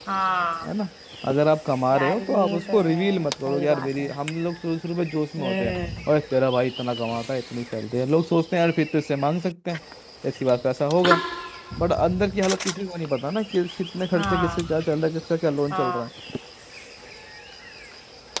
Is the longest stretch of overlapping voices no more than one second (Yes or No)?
No